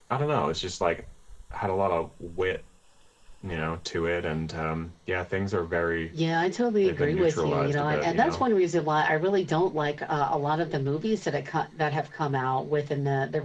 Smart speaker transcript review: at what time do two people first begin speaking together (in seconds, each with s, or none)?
6.8 s